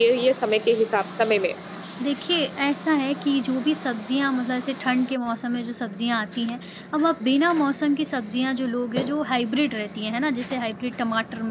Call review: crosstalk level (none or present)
none